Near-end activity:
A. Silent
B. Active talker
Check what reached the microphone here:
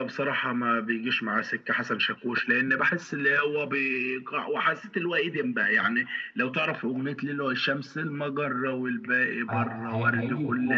B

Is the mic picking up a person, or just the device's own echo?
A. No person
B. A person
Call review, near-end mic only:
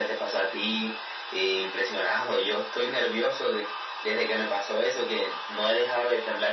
A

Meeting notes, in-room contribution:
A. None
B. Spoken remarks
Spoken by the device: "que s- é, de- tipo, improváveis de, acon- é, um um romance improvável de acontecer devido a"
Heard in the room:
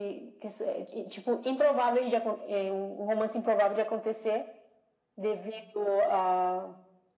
A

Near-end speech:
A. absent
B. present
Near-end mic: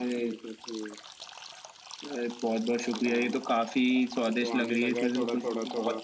B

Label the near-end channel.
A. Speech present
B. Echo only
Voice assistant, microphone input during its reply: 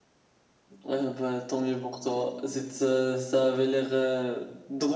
B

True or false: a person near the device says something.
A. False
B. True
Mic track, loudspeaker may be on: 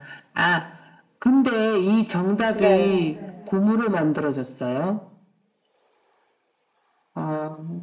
B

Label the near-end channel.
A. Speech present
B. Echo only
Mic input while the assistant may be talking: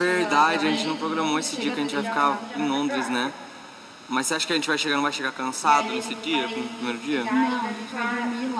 A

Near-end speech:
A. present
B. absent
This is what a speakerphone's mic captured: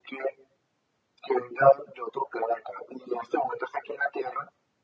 B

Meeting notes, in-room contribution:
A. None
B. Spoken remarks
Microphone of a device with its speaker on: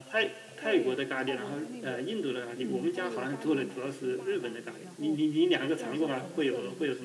B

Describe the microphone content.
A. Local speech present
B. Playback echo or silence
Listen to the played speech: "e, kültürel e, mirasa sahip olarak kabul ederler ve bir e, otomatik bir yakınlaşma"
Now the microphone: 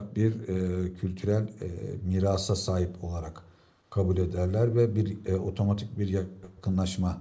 B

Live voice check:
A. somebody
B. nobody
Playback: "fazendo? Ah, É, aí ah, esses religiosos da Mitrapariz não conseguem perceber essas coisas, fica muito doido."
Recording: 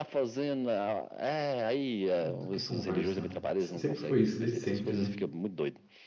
A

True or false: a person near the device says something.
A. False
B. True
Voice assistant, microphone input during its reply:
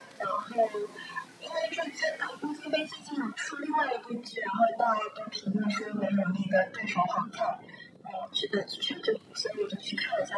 A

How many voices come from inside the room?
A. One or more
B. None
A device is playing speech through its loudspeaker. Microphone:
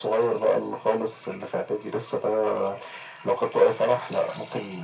B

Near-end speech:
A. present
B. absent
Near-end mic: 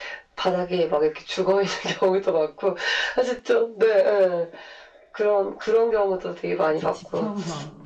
A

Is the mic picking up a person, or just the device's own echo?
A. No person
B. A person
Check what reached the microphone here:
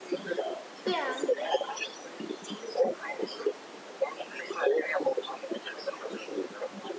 B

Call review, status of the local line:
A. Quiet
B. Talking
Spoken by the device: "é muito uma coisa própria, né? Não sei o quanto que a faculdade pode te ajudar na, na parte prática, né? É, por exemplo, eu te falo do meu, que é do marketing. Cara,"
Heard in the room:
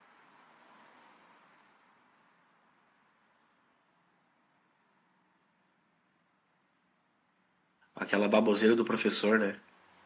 B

